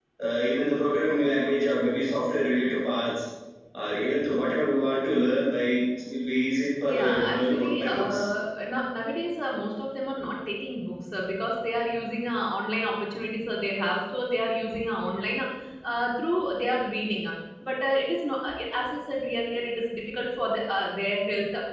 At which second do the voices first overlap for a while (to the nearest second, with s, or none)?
7 s